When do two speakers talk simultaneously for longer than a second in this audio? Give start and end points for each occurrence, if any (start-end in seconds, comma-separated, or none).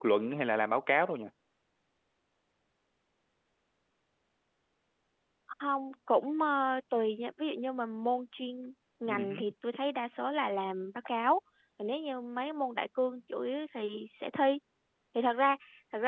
none